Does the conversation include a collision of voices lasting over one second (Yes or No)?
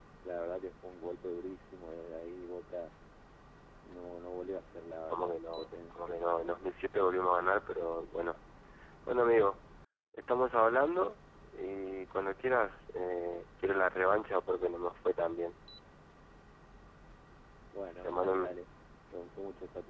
Yes